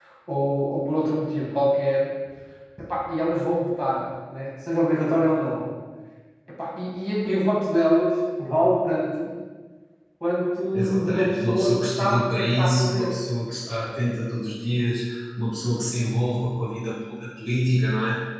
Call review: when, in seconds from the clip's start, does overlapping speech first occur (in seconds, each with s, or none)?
10.7 s